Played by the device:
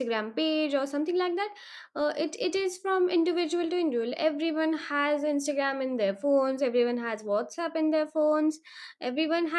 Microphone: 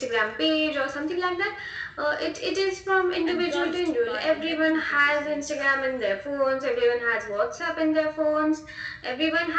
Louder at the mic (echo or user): echo